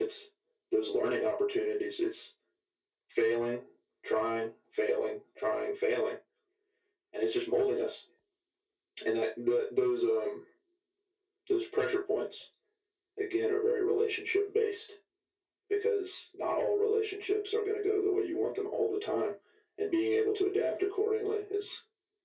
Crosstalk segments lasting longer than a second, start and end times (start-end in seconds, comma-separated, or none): none